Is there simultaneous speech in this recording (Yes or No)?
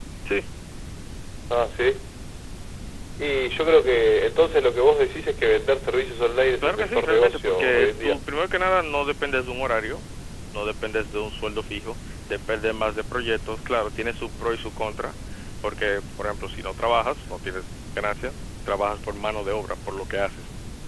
Yes